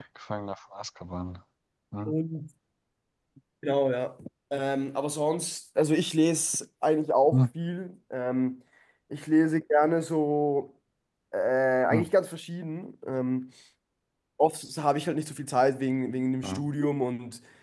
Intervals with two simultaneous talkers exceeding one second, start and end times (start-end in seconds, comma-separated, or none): none